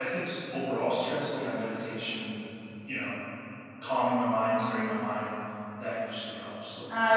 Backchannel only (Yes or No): No